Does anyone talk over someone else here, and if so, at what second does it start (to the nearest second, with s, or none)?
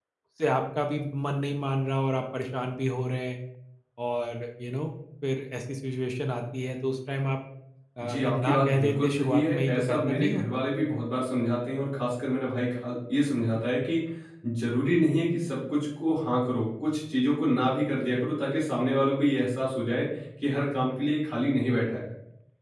8 s